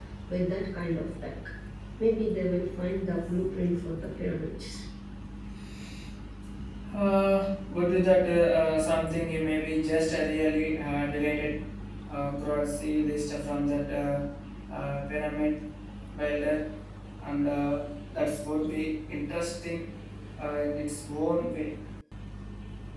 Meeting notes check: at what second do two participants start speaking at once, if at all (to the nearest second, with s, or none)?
none